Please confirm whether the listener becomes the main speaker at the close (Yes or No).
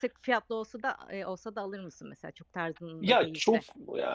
Yes